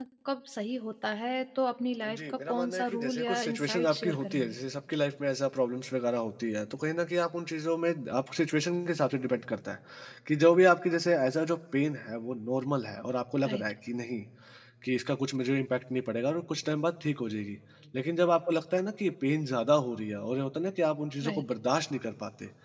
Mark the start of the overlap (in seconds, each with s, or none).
2.1 s